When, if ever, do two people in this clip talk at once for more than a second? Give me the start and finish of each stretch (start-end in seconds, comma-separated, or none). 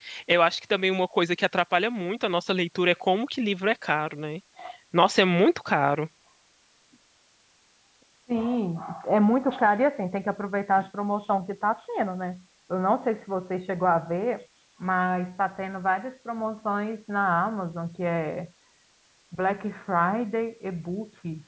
none